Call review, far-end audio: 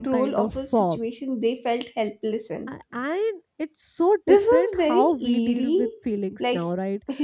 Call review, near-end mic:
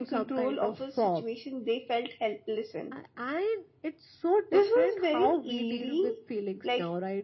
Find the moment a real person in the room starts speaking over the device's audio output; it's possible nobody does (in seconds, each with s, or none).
none